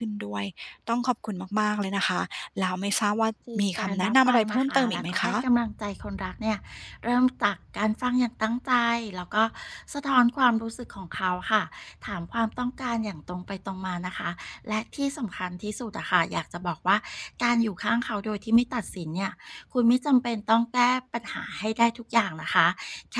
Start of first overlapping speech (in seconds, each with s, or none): 3.5 s